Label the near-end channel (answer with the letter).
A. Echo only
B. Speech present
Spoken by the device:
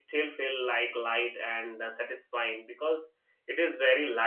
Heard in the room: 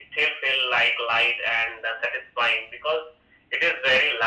A